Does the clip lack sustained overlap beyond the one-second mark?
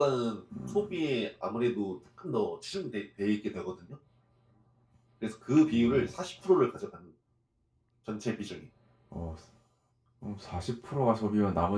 Yes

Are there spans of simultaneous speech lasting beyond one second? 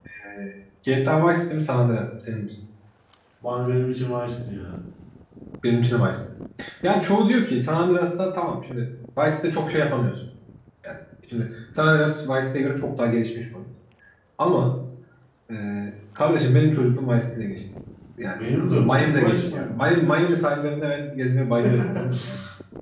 Yes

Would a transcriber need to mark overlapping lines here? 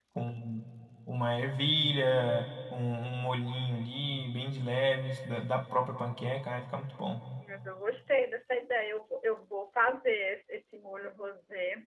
No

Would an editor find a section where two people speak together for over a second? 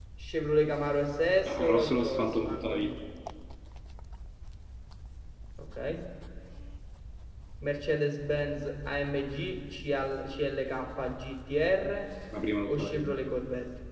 Yes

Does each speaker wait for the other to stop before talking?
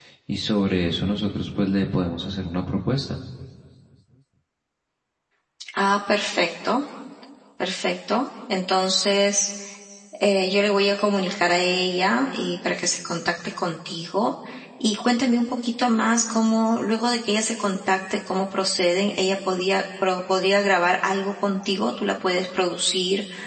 Yes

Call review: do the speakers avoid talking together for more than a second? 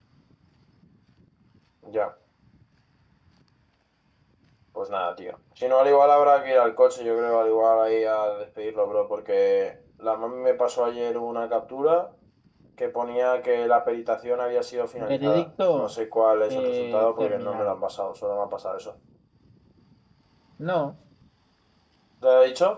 No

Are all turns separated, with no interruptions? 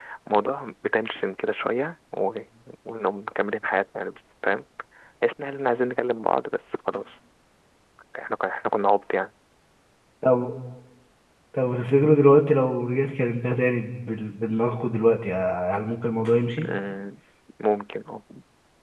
Yes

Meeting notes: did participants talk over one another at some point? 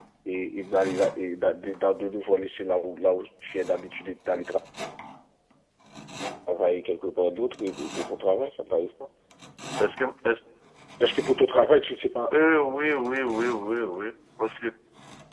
No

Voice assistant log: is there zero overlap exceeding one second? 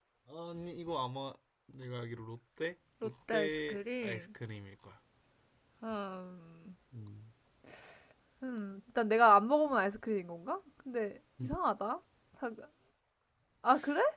No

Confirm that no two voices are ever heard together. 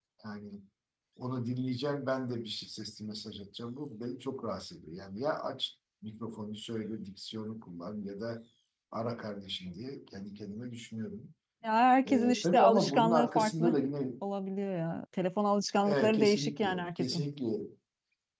No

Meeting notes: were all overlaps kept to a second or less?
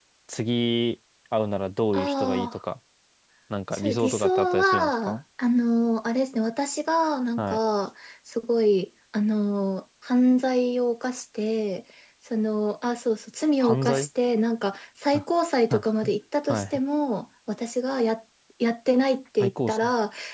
No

